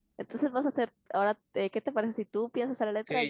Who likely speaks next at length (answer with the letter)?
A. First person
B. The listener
B